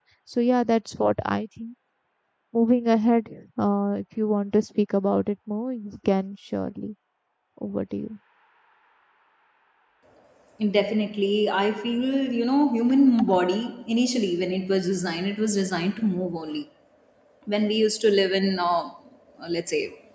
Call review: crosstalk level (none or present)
none